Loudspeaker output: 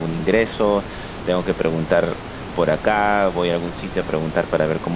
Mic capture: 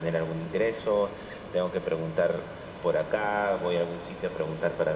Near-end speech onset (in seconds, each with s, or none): none